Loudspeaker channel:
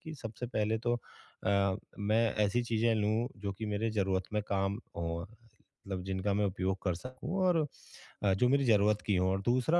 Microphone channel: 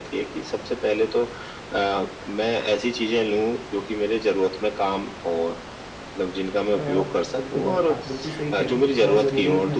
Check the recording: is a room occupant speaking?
Yes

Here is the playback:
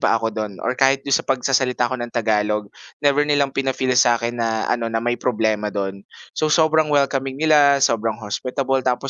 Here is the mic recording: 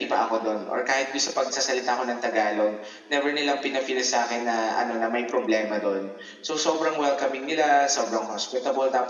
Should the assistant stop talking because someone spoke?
No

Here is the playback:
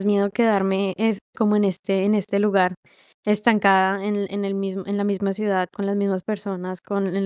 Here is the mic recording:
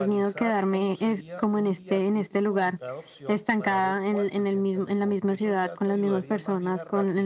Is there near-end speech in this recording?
Yes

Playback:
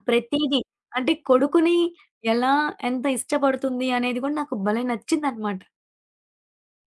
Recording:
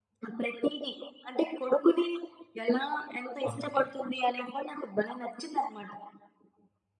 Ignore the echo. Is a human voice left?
Yes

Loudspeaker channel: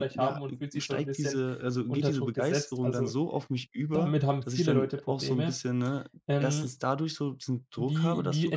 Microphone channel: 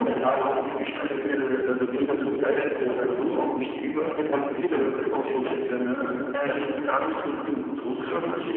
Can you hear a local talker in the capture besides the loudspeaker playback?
Yes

